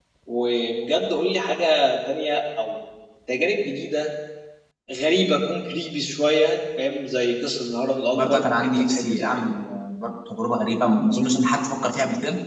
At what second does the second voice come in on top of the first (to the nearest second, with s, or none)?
8 s